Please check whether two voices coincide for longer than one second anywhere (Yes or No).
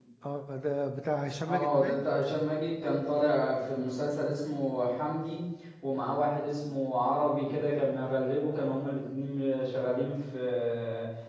No